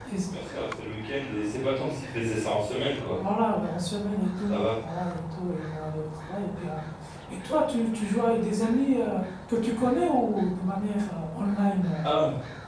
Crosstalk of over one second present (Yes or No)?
No